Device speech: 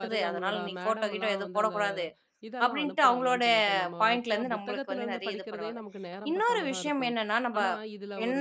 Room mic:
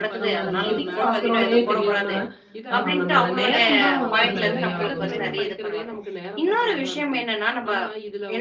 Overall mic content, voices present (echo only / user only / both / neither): both